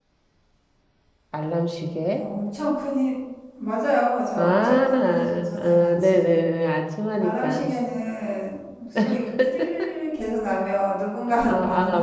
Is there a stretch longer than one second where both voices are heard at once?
Yes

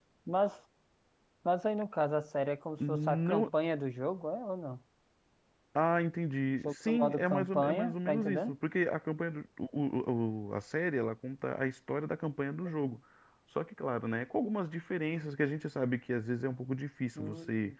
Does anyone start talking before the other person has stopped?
Yes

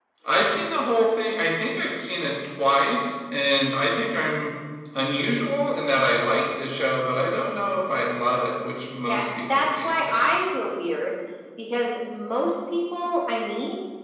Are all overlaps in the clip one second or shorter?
No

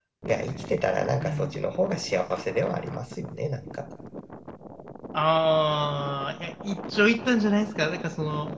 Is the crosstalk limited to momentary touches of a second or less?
Yes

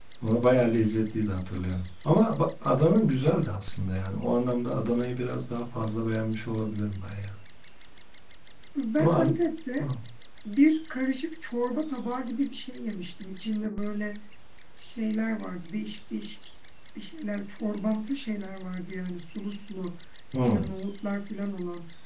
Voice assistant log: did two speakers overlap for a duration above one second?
No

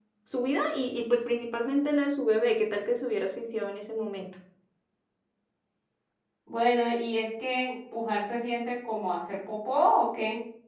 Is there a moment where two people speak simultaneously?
No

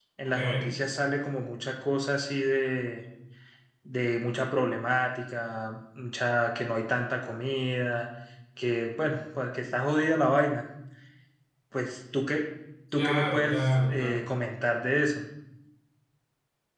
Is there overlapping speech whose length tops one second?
Yes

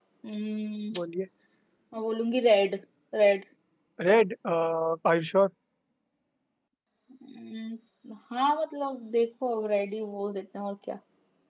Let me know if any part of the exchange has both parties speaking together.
No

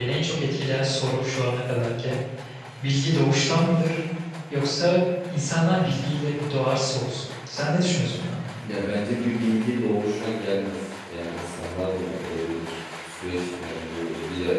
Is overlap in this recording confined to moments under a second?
Yes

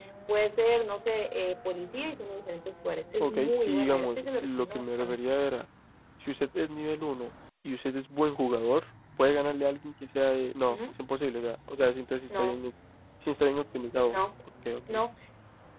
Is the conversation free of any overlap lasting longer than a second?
No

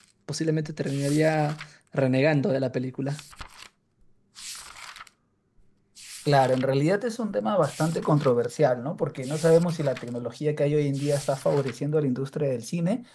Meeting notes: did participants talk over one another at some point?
No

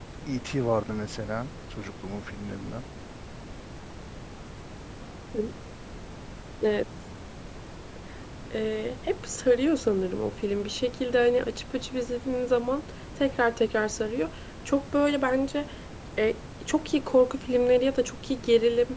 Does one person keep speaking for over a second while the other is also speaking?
No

